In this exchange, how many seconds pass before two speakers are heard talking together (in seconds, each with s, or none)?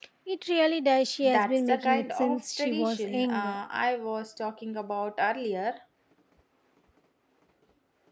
1.2 s